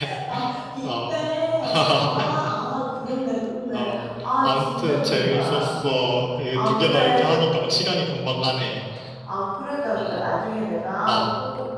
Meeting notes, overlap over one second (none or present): present